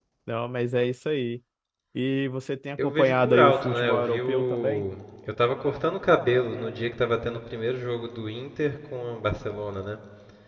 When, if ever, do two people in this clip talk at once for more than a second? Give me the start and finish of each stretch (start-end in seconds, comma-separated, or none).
2.8-4.8